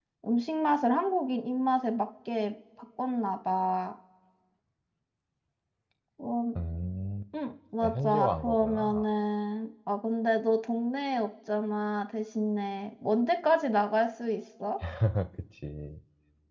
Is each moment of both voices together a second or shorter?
No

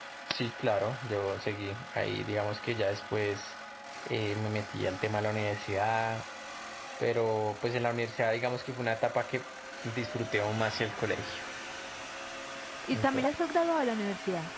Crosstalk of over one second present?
No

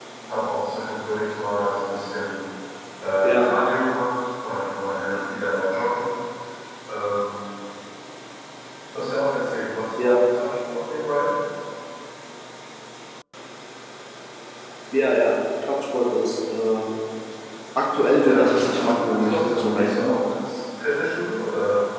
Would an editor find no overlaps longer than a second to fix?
No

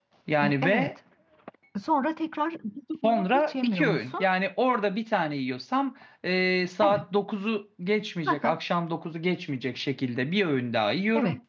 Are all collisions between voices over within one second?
No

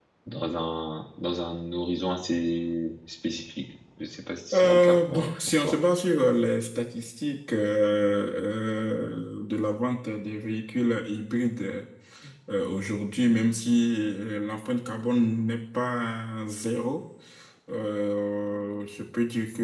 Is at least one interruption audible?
Yes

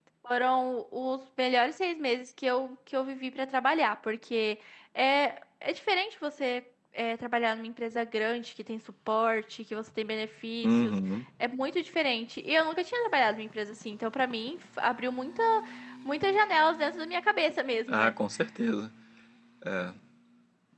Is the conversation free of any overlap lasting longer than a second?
Yes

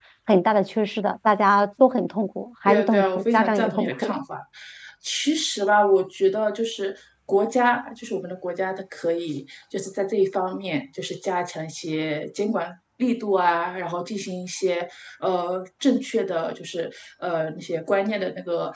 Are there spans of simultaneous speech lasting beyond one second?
Yes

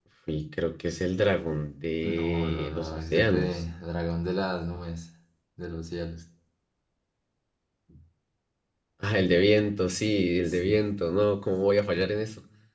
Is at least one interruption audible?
Yes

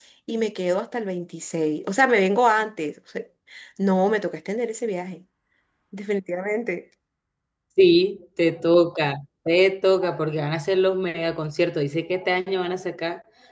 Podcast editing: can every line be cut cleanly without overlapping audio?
Yes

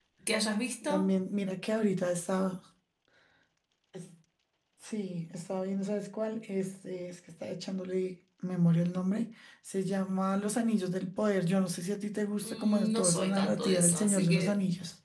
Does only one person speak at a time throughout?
No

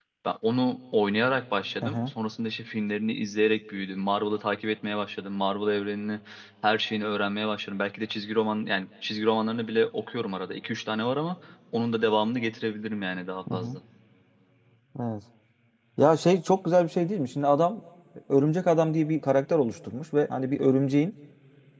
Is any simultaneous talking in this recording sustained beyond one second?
No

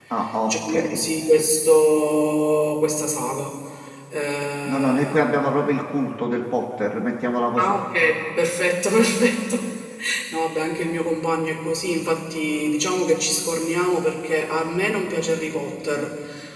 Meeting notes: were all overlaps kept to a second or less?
Yes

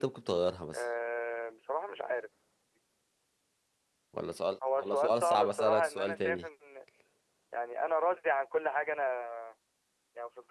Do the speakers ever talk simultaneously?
Yes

